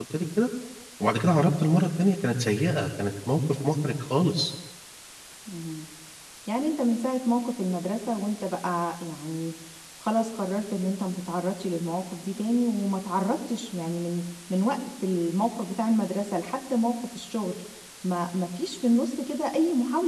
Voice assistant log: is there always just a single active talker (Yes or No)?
Yes